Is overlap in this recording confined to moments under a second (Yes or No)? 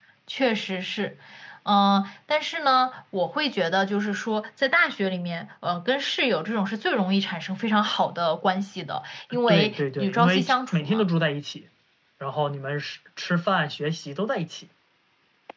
No